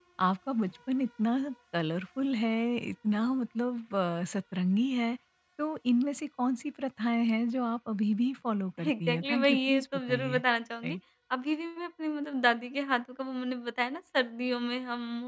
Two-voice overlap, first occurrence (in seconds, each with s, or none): 8.8 s